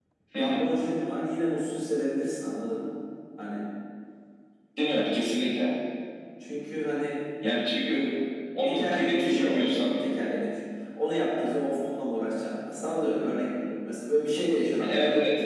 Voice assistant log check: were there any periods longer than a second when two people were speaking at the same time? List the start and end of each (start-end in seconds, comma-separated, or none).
8.6-9.9